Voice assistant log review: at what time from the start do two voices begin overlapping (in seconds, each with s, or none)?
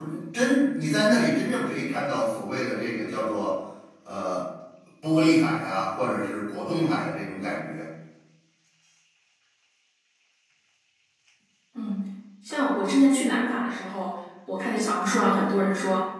none